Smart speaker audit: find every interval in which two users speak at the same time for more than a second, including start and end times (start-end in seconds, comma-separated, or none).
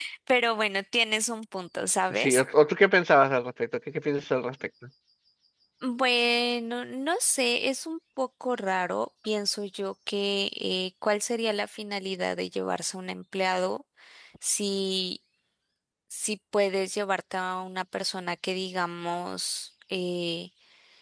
none